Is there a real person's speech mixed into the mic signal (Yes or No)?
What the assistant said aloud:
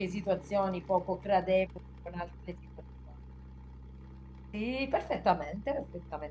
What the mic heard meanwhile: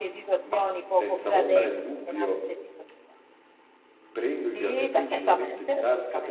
Yes